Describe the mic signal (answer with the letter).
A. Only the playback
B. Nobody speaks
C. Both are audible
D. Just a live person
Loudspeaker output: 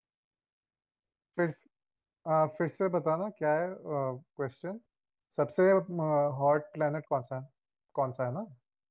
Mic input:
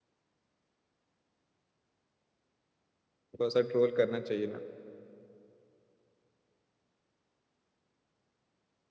D